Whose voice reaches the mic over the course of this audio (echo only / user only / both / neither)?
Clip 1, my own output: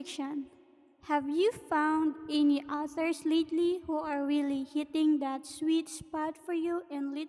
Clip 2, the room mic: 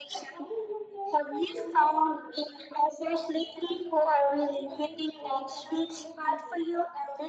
both